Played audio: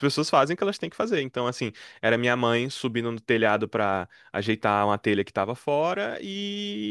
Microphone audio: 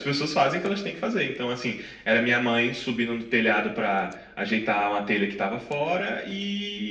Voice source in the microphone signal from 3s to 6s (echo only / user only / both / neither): echo only